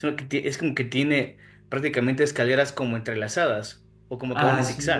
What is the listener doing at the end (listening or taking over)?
taking over